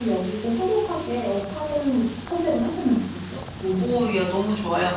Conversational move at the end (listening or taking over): taking over